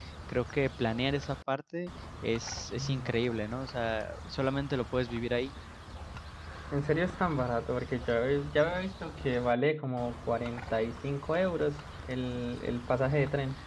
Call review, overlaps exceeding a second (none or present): none